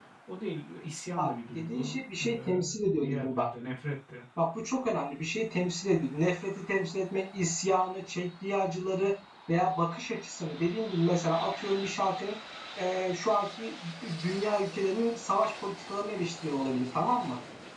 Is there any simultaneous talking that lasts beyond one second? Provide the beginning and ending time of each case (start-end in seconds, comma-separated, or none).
1.2-2.5